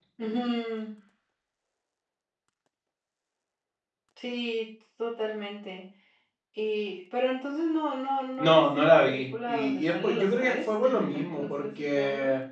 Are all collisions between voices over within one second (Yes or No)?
No